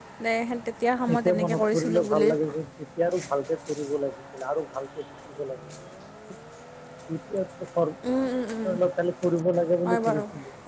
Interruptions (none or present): present